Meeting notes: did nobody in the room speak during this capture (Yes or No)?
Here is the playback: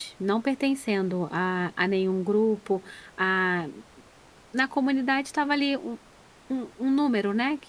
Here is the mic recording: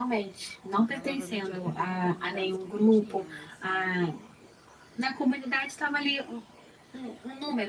No